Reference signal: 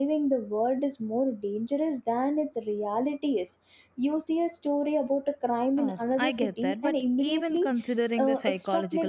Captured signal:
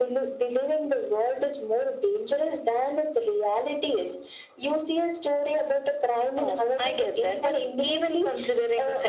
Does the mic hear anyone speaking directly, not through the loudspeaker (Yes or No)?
No